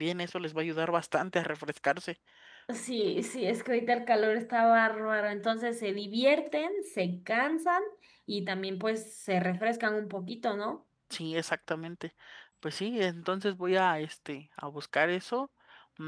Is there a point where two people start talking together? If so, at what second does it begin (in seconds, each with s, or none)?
none